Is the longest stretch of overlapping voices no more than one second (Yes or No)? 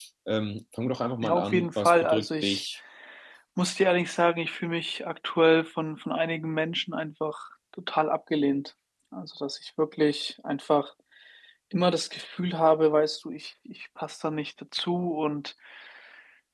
No